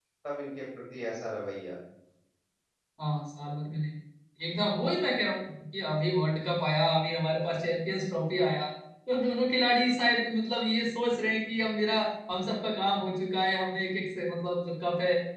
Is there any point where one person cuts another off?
No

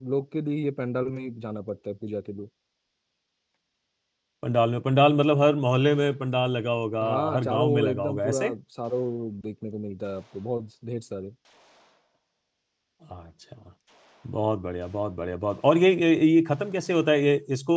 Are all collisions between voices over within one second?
No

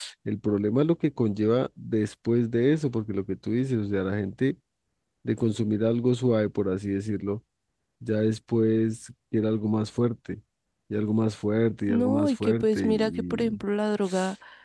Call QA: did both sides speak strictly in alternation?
No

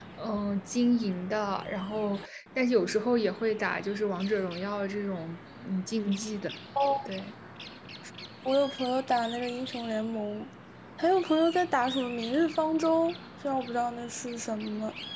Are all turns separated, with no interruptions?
Yes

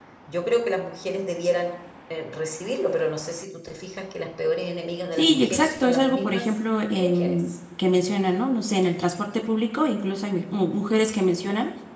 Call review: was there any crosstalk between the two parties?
Yes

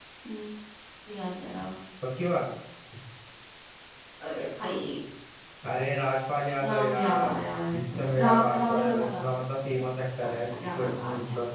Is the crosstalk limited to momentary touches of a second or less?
No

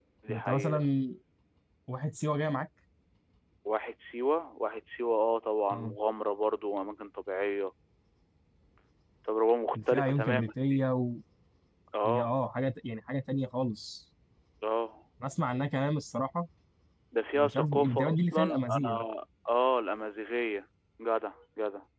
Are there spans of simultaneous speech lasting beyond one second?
Yes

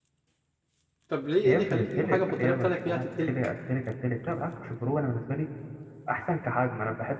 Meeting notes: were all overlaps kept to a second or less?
No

